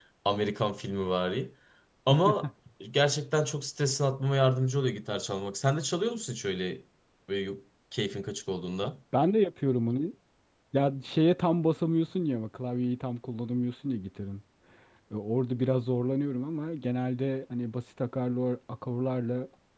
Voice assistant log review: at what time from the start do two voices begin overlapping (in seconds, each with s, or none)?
none